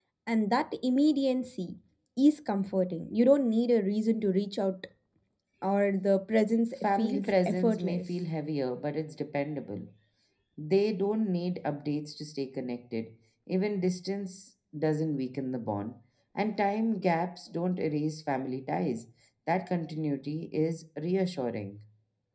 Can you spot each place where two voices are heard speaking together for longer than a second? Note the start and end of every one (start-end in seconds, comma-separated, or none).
6.8-8.0